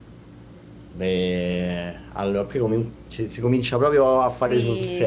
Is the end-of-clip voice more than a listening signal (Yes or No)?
Yes